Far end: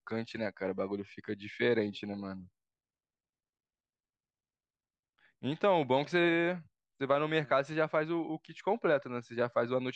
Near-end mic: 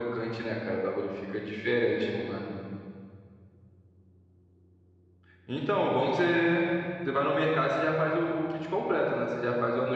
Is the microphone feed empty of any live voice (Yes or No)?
Yes